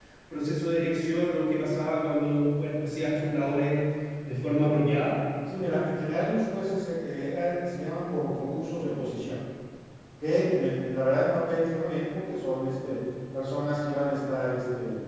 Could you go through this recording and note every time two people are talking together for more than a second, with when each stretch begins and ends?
none

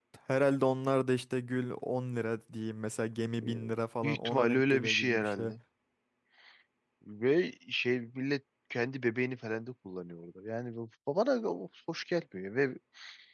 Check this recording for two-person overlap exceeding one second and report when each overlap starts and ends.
4.0-5.5

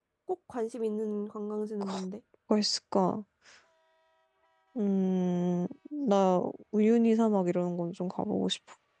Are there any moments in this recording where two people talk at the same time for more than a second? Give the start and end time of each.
none

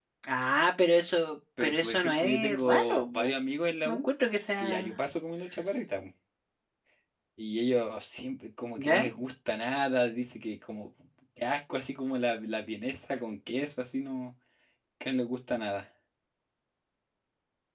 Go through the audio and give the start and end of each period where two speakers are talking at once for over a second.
1.6-3.3

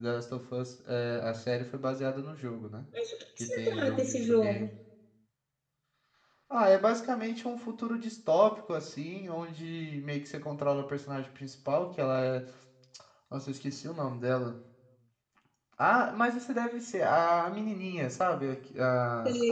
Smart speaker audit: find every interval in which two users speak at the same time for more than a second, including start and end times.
3.4-4.6

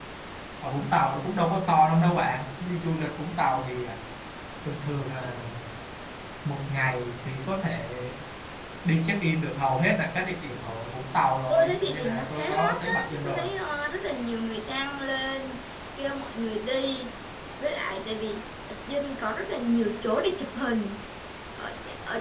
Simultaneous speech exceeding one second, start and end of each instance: 11.5-13.4

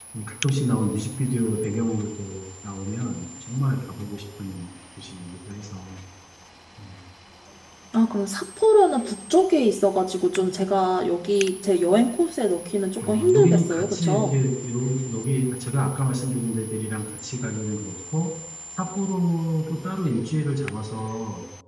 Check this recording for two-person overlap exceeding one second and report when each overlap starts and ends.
13.1-14.4

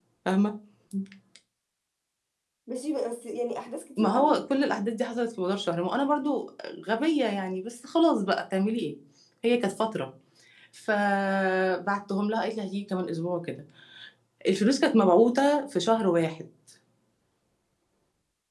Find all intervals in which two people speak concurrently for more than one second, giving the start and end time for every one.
none

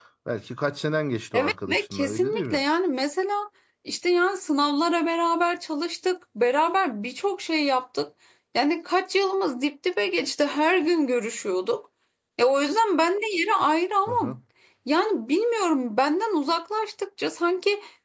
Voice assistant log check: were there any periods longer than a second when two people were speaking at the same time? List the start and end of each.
1.3-2.6

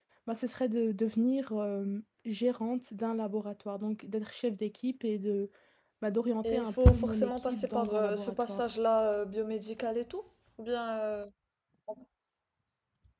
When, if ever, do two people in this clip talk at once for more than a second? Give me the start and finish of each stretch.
6.4-8.6

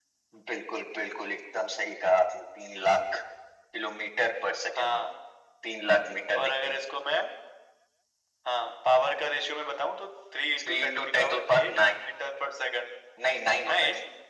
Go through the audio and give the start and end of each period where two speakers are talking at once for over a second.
10.6-11.9

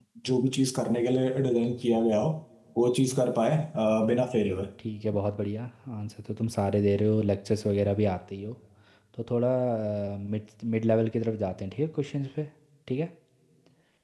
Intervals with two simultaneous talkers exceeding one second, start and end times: none

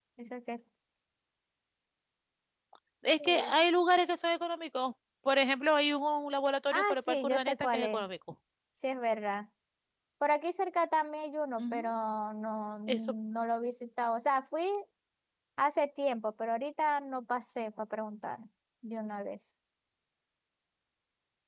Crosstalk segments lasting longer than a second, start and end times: 6.7-8.1

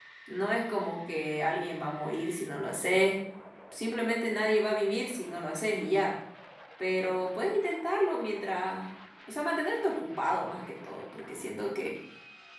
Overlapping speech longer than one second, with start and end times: none

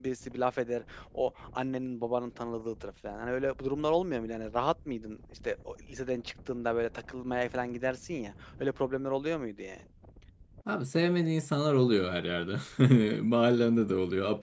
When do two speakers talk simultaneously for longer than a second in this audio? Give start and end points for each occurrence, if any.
none

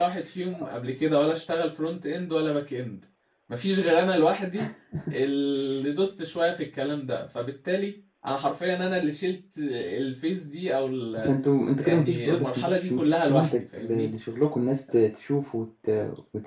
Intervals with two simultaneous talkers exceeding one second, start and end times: 11.8-14.1

